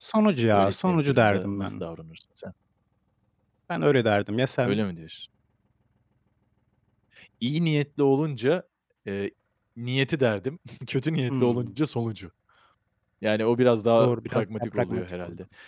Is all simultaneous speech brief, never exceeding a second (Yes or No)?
No